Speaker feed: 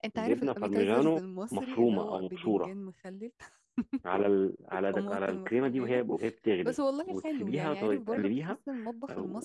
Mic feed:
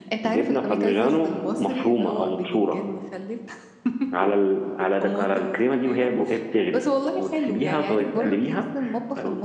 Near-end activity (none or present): none